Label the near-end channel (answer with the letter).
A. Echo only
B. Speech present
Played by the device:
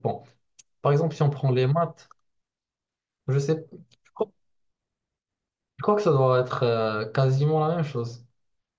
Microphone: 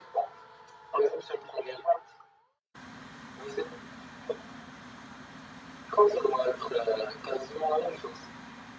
A